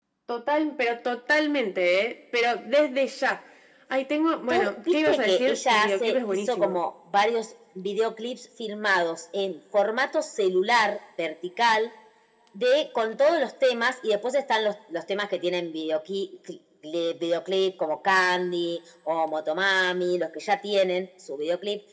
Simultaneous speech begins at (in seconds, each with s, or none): 4.5 s